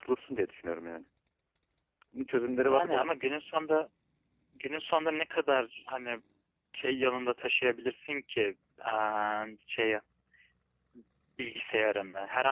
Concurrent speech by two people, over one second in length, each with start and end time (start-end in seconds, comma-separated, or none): none